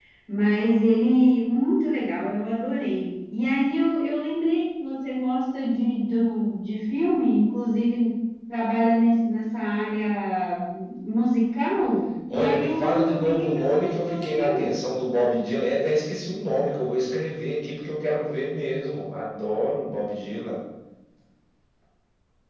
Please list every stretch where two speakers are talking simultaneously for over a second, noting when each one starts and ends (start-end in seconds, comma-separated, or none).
12.3-14.7